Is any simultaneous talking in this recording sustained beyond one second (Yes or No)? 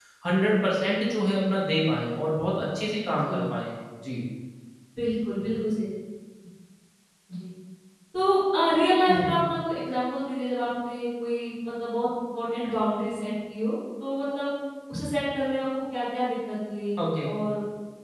No